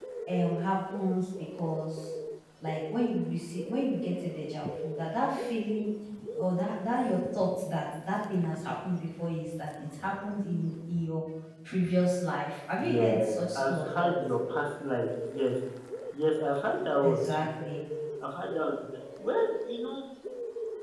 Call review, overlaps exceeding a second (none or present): present